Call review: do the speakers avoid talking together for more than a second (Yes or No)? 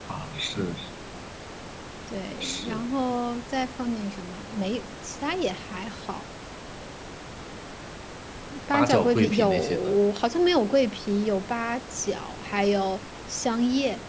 No